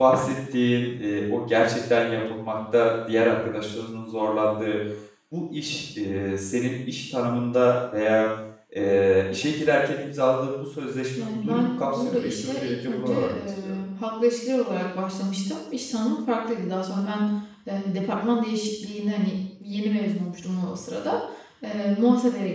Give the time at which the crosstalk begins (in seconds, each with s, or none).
11.2 s